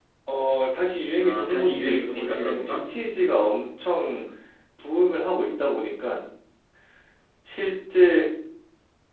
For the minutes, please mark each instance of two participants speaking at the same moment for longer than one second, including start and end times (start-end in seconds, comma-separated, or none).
1.2-2.9